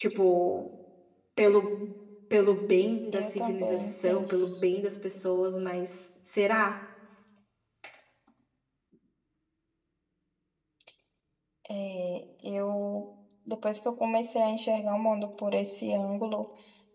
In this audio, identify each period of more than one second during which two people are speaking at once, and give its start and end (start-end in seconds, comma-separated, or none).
3.1-4.6